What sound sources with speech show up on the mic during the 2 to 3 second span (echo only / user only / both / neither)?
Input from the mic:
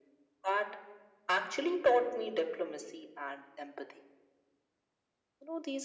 echo only